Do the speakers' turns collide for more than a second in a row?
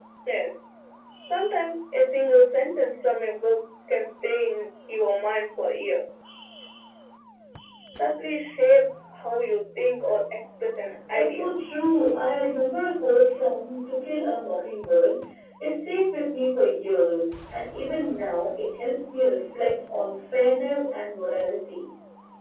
No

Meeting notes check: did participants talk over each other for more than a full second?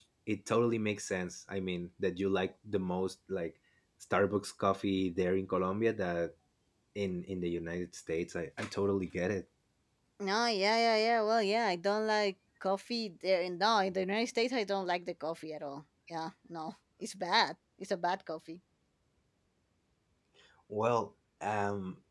No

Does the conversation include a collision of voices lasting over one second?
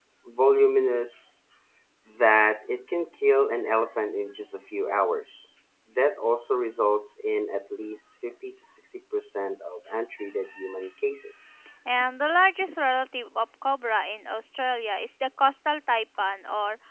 No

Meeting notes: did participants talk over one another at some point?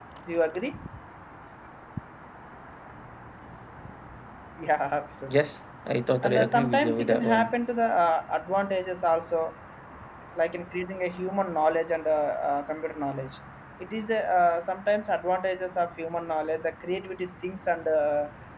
Yes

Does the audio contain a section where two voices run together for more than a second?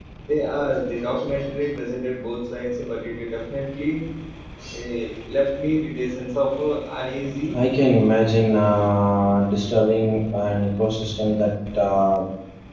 No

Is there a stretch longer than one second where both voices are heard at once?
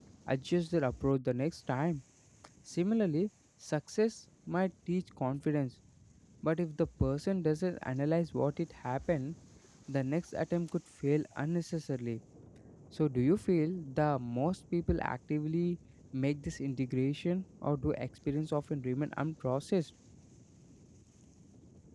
No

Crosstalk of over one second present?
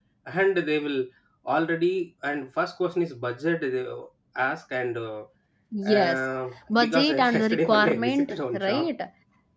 Yes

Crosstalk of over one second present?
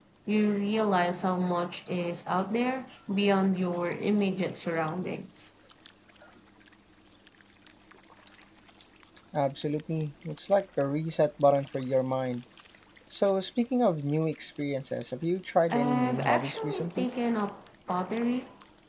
Yes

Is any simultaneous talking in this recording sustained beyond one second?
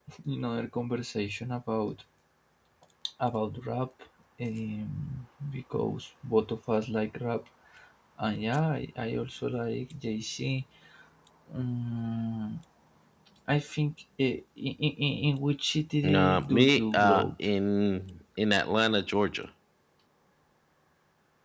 Yes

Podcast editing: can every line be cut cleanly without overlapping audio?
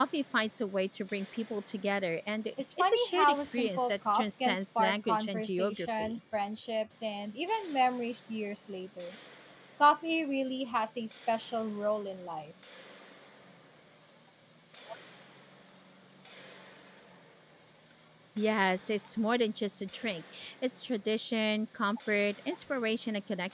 No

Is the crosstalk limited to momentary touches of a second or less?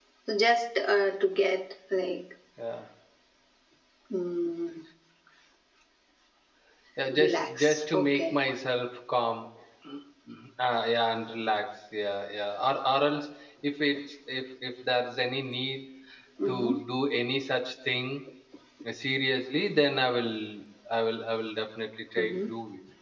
No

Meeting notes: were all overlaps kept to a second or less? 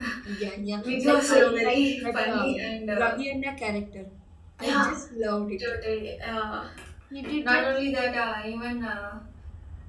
No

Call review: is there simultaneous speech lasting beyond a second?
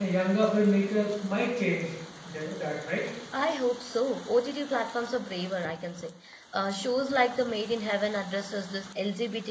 No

